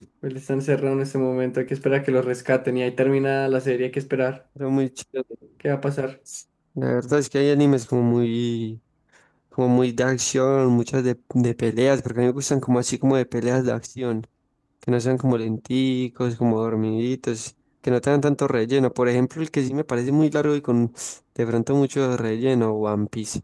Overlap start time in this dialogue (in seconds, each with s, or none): none